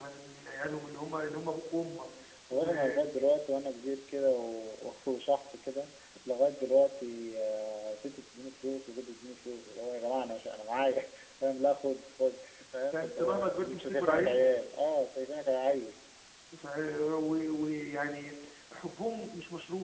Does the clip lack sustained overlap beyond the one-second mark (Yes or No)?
No